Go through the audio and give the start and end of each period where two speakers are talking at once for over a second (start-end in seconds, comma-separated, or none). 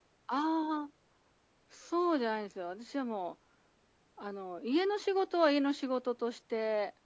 none